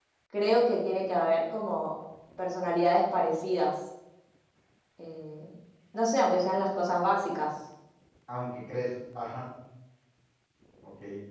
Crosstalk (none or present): none